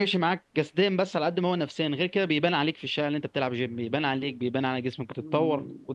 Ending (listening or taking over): taking over